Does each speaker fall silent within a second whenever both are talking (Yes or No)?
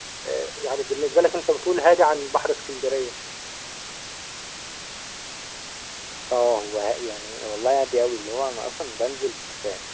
Yes